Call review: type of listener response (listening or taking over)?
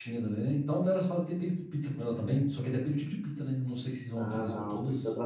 taking over